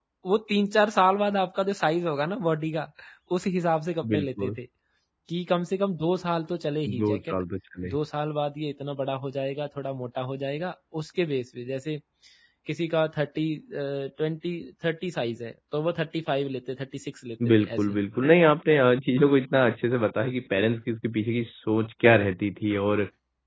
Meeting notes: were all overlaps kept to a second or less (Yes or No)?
Yes